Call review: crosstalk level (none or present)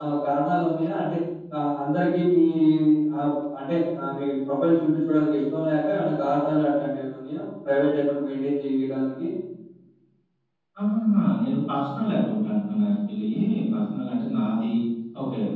none